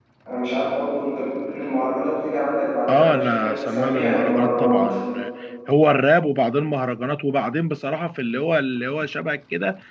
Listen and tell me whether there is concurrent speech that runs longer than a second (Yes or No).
Yes